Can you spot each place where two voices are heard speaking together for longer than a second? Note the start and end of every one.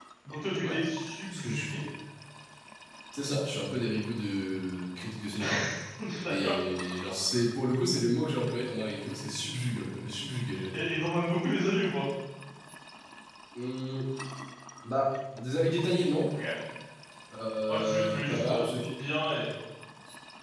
17.7-18.9

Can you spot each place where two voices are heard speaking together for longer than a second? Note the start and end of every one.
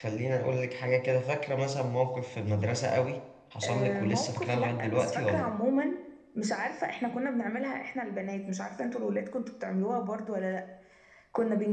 3.6-5.5

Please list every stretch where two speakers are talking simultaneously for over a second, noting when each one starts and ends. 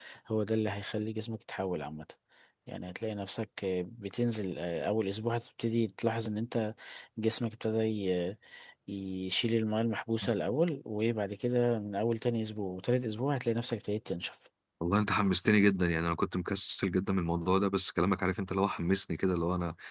none

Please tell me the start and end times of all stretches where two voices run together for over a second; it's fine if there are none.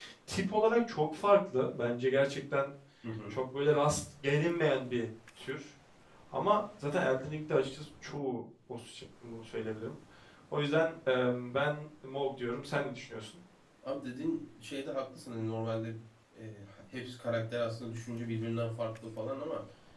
none

